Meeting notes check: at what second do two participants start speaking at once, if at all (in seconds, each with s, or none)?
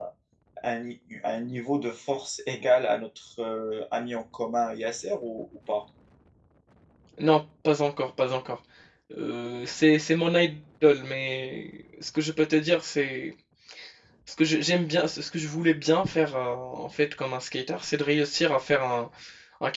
none